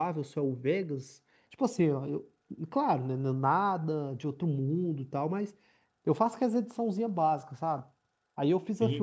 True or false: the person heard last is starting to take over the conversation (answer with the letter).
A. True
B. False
B